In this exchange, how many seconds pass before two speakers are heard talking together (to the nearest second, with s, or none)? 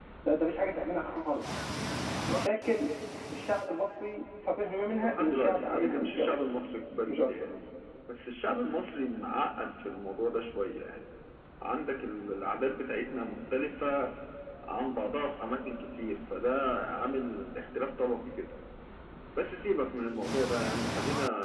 5 s